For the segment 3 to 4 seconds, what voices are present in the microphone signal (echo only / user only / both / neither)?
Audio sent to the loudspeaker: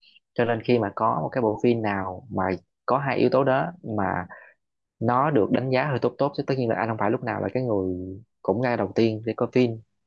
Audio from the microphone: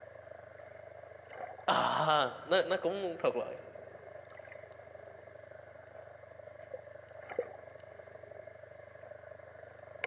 user only